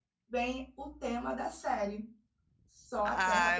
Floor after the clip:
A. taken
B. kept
A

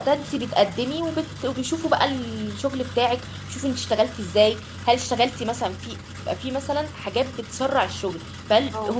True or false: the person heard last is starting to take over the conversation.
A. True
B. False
B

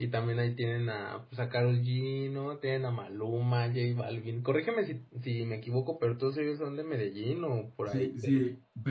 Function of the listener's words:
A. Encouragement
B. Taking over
B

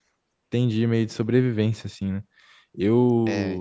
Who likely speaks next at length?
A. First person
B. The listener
A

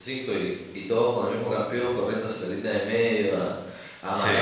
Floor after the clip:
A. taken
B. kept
B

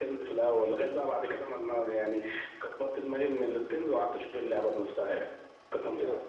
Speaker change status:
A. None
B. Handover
B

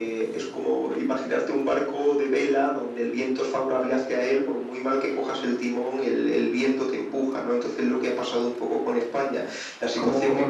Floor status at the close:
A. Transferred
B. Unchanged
A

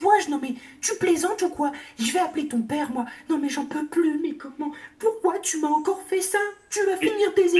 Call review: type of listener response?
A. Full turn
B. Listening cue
A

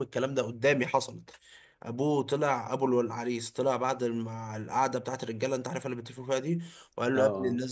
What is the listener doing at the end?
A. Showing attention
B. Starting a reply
A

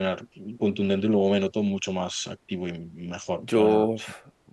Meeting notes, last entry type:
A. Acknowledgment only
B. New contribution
B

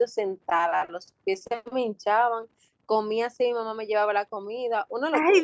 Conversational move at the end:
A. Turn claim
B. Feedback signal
A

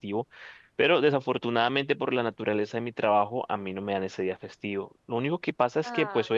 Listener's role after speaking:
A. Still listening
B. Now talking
A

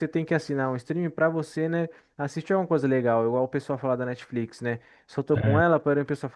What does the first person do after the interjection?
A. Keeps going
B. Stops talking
A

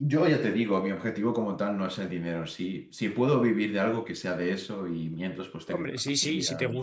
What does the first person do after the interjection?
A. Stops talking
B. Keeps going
A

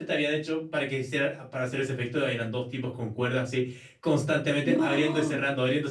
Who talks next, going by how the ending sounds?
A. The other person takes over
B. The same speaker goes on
B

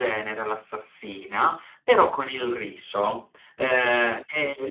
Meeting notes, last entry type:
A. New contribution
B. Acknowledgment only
B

